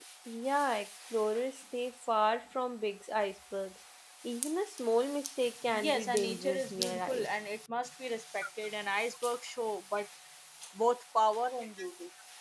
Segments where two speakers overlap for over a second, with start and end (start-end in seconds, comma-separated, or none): 5.7-7.3